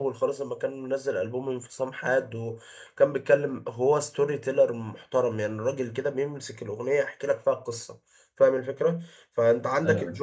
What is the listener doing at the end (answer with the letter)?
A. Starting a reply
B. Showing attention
B